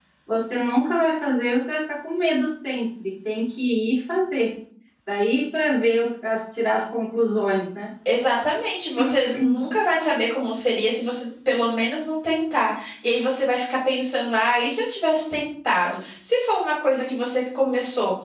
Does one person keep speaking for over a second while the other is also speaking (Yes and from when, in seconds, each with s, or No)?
No